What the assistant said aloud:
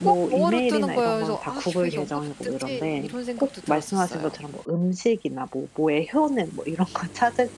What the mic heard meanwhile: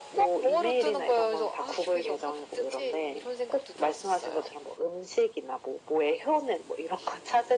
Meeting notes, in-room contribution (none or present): none